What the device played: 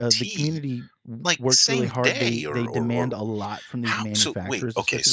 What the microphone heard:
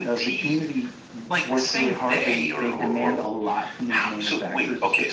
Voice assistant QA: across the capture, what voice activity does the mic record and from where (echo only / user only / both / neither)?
echo only